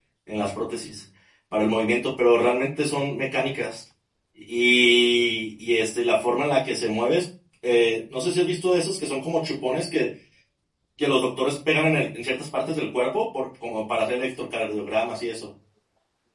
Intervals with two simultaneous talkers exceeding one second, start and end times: none

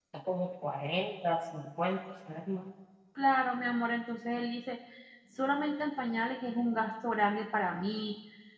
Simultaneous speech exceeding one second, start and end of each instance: none

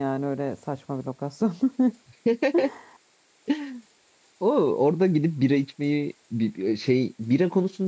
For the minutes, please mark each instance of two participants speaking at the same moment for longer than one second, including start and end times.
none

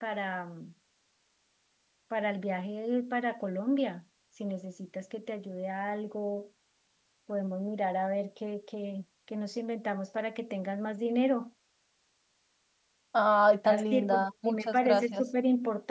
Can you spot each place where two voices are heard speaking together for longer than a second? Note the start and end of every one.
13.7-15.2

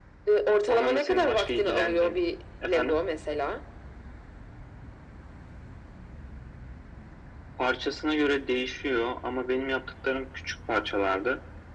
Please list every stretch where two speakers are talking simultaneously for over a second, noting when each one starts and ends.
0.7-2.2

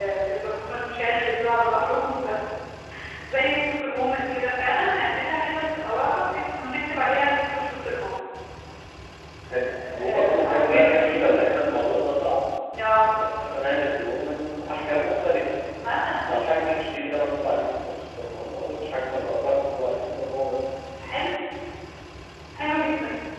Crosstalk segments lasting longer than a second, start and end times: 9.6-11.6

